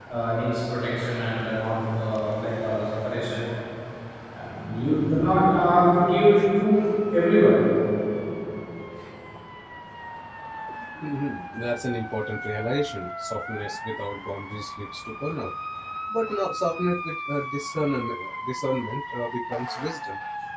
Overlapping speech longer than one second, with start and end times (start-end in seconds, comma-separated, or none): none